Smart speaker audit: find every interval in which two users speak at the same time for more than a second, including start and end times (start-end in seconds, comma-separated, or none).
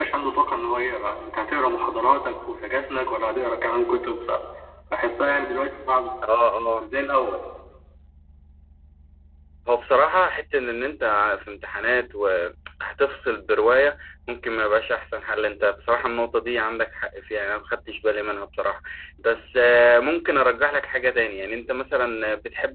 none